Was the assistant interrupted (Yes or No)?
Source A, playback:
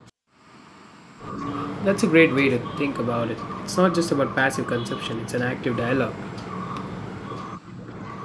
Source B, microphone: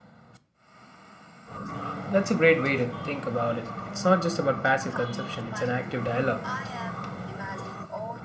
Yes